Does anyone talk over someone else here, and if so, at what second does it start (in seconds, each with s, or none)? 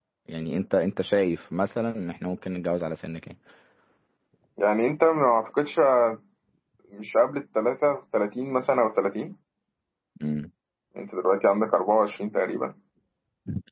none